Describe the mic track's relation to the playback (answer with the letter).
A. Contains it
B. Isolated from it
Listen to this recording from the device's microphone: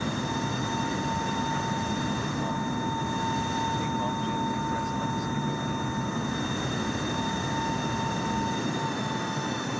B